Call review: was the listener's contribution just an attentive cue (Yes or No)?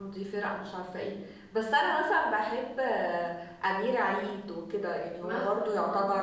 Yes